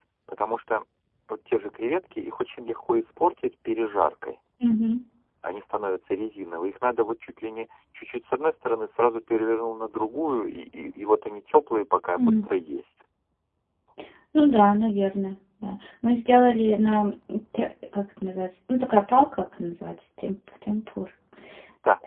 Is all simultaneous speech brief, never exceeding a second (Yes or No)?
Yes